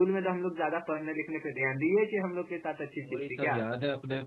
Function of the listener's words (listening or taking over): taking over